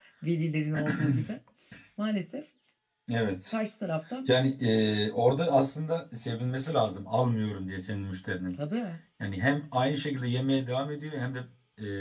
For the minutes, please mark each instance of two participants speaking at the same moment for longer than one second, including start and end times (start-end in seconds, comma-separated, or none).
none